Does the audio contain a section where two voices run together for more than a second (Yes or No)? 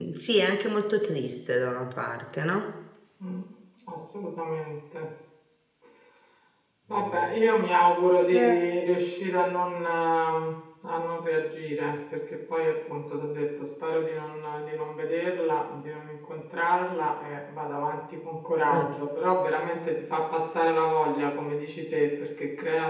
No